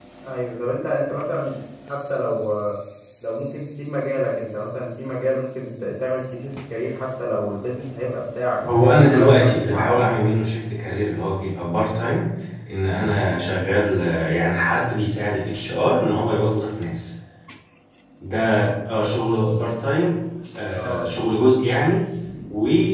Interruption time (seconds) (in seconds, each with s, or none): 8.7 s